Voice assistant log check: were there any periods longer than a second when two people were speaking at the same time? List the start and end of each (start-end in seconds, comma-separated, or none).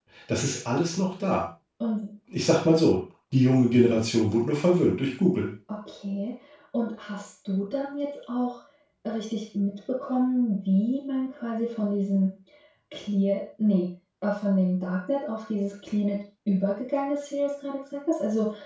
none